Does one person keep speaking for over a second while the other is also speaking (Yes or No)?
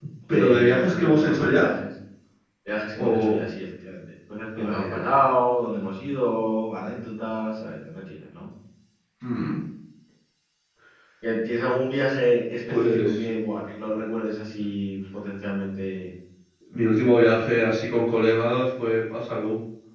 Yes